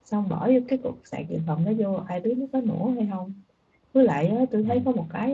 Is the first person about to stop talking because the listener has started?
No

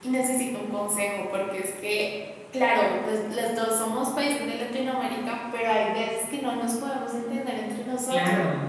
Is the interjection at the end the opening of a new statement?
Yes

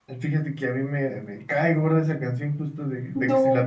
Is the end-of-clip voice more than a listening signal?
No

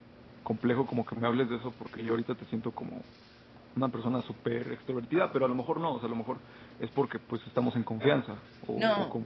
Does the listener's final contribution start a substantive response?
Yes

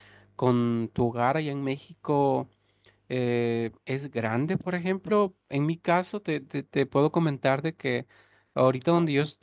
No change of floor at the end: Yes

